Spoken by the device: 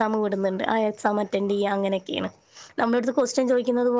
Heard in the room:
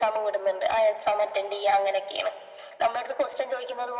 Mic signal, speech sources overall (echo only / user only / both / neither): echo only